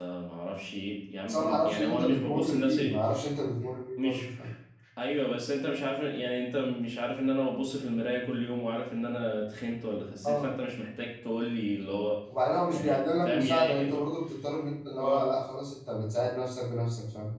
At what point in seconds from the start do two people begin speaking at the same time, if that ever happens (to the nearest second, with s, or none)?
1 s